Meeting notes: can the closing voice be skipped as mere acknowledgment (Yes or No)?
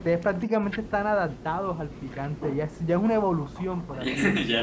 No